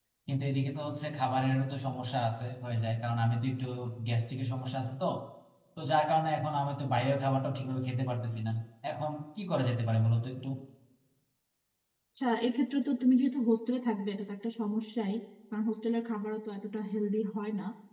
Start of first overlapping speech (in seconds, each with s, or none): none